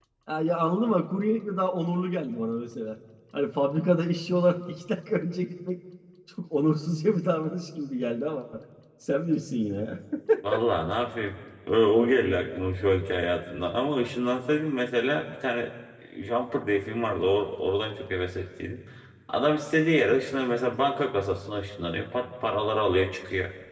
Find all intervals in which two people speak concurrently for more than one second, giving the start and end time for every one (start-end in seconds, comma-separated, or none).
none